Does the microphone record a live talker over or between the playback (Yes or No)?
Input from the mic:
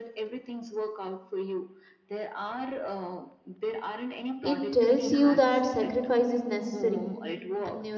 Yes